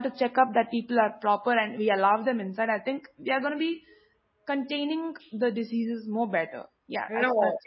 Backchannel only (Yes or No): No